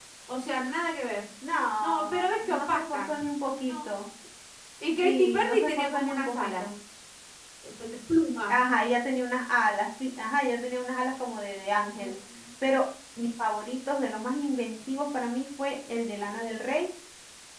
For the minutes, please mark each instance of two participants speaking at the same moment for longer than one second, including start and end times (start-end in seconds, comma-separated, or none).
1.8-3.1, 5.0-6.6